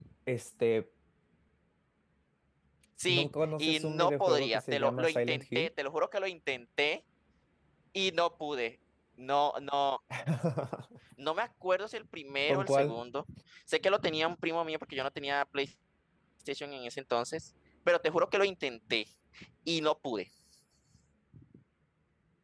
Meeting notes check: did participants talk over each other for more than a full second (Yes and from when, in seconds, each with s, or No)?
Yes, from 3.1 s